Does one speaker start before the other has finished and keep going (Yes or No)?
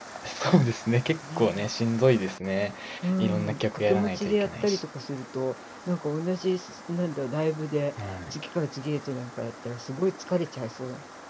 Yes